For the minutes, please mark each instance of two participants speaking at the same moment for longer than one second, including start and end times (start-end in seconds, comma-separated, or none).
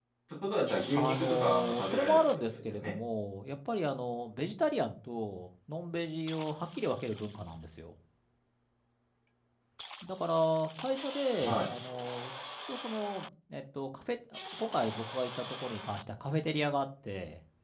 0.9-3.0